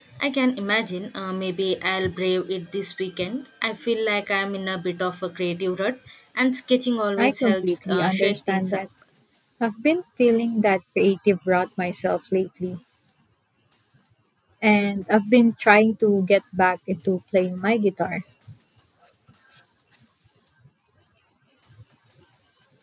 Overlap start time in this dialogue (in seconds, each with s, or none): 7.2 s